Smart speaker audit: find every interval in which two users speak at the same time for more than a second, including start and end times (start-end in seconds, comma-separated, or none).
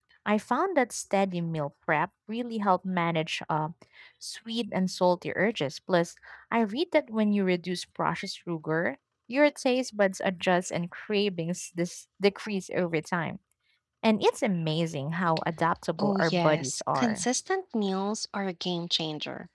16.0-17.3